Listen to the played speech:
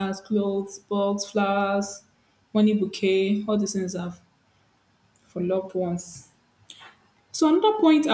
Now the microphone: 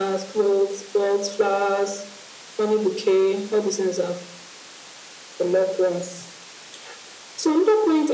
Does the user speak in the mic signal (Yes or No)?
No